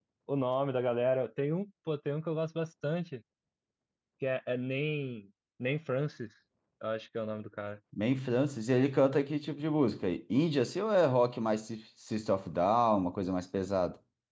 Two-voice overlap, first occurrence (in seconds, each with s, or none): none